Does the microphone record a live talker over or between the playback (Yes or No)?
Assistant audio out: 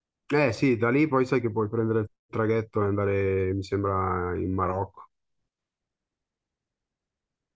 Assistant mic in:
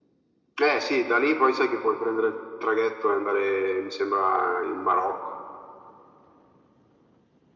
No